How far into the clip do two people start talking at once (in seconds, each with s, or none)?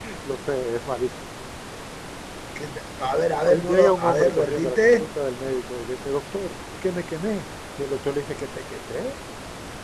3.4 s